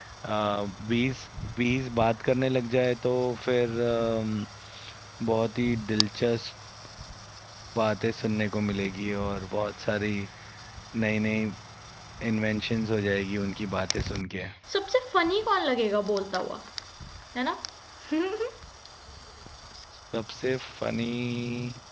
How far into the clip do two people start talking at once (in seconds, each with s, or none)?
none